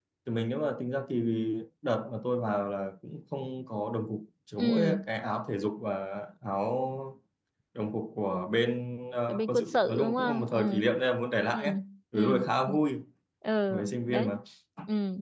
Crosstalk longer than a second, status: present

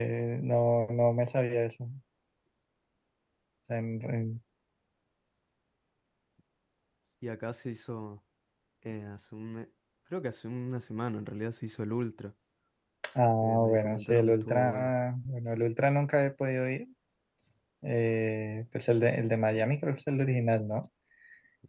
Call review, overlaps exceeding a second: present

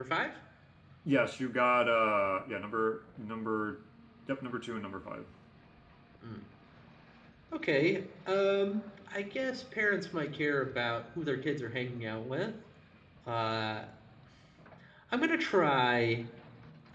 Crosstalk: none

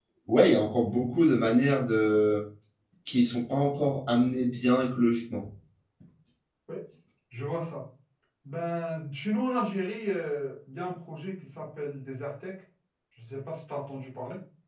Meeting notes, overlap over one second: none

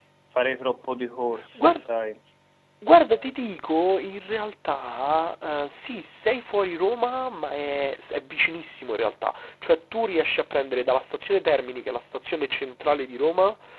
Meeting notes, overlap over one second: none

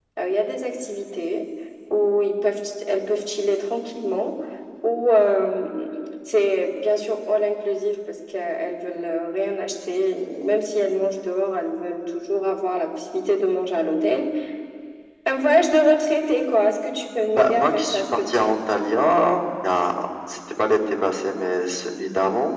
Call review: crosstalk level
present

